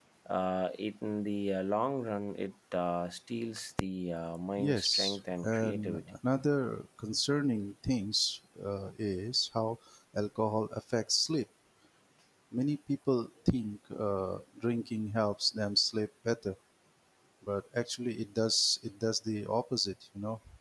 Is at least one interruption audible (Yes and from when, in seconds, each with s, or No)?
Yes, from 4.6 s